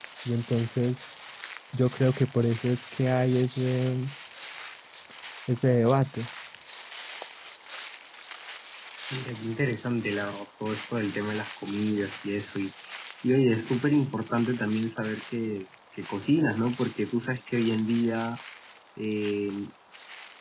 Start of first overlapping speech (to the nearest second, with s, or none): none